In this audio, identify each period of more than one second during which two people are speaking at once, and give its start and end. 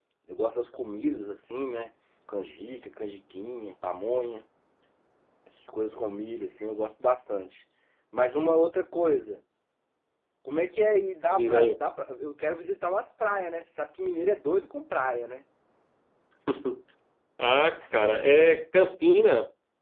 none

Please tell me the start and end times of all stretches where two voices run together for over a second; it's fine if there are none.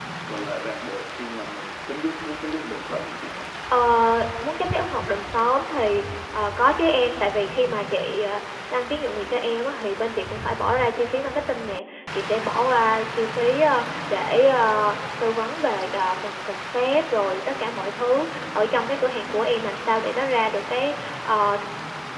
none

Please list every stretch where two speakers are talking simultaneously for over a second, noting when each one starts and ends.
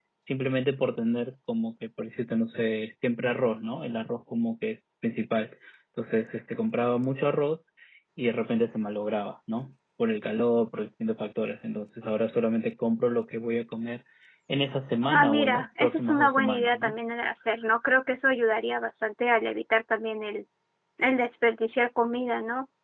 15.1-16.9

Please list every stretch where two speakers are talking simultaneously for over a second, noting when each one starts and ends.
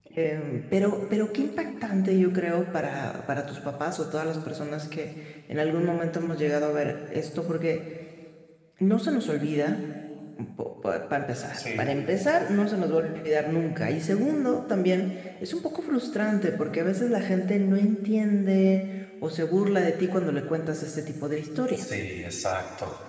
none

